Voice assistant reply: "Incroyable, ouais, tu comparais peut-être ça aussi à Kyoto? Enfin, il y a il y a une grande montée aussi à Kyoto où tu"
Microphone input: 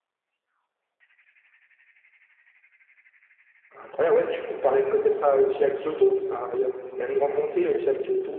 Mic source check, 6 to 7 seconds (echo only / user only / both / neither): echo only